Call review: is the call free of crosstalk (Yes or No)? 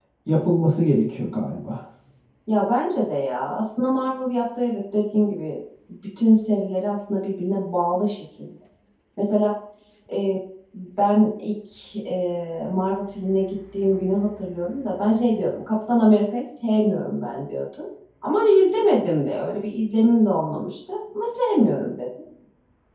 Yes